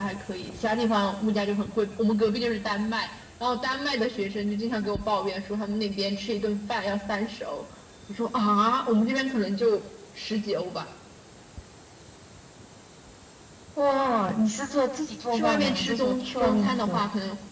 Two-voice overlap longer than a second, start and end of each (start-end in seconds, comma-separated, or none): 15.3-17.0